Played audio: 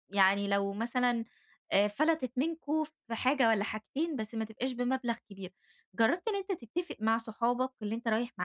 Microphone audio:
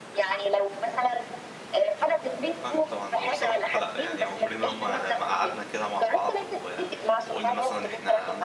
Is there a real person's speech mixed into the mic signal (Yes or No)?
Yes